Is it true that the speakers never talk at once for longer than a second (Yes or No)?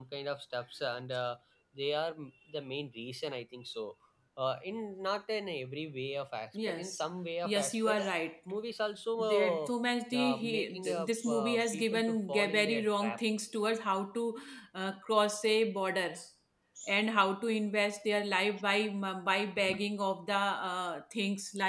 No